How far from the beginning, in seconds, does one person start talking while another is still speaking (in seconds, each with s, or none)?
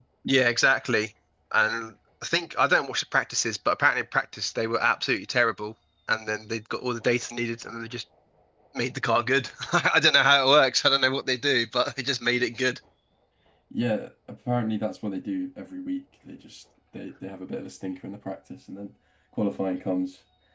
none